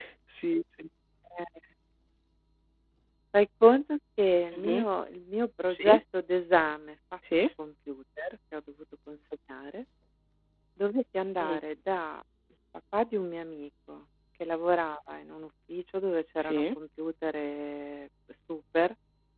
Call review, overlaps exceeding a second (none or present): none